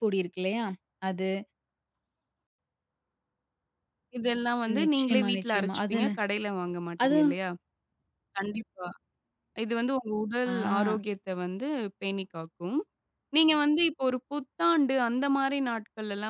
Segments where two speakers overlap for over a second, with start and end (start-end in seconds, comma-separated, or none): 4.8-6.1